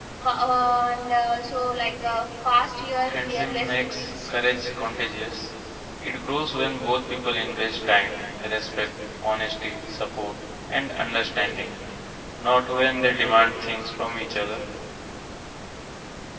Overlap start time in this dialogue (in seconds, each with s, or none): 3.1 s